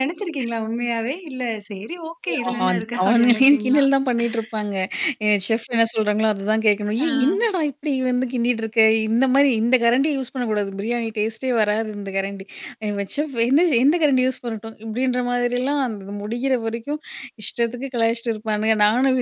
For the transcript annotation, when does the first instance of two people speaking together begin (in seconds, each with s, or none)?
2.5 s